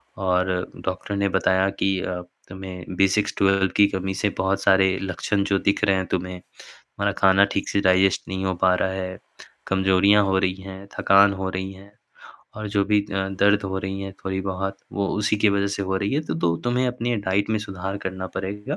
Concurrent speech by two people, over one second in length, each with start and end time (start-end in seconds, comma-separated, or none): none